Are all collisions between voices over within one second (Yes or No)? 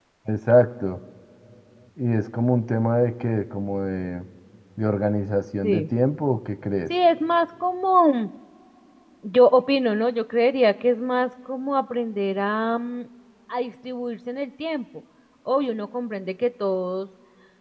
Yes